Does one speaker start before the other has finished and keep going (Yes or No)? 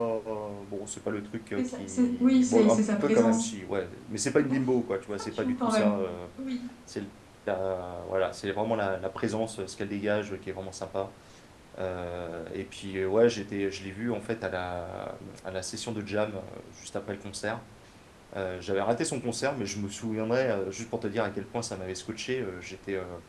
Yes